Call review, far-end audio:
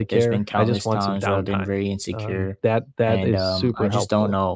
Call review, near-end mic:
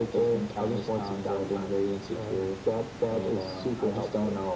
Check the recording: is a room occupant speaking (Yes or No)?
No